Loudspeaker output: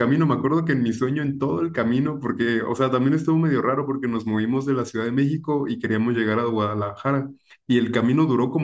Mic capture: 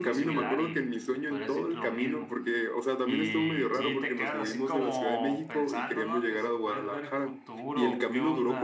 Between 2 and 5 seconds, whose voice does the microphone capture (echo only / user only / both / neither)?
both